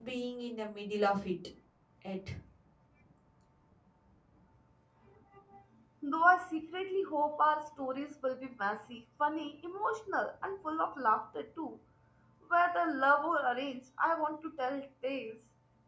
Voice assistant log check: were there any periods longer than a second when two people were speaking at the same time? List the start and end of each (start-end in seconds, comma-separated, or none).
none